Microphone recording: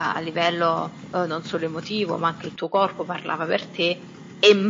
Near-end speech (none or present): none